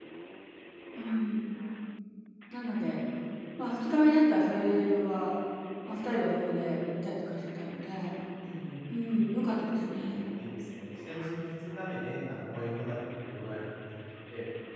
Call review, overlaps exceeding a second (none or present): none